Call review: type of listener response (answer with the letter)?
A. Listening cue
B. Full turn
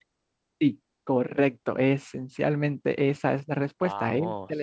A